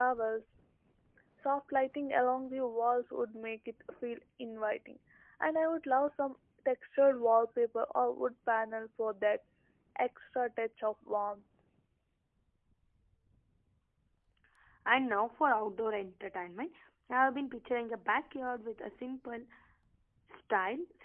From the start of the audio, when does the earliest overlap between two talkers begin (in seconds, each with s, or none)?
none